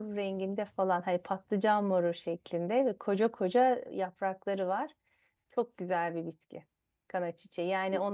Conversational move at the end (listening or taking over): listening